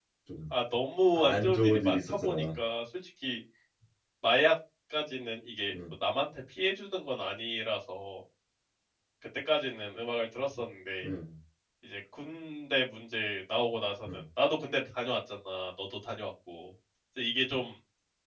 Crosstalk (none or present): present